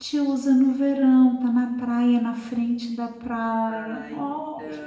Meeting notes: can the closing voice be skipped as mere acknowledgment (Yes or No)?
No